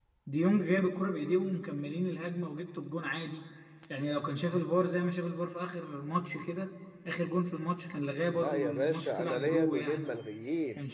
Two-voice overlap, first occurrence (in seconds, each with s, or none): 8.3 s